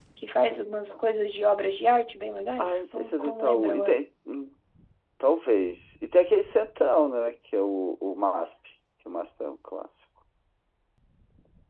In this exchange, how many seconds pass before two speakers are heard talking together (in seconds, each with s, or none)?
2.6 s